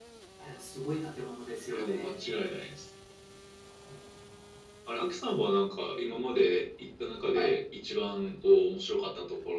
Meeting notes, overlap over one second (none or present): none